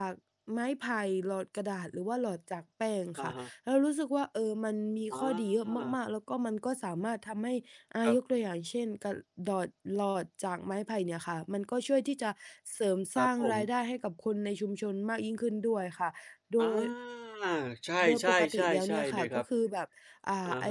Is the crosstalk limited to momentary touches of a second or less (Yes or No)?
No